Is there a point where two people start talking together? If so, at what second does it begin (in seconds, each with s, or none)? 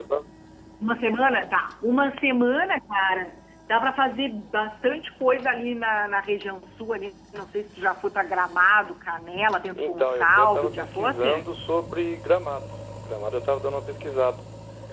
9.8 s